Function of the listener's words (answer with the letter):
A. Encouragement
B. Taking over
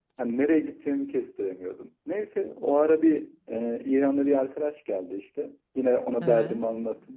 A